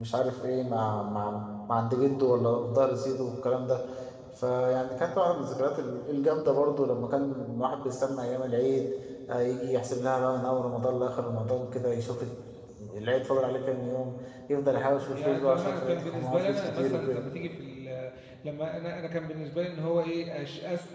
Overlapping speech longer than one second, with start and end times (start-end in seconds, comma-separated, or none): 15.0-17.2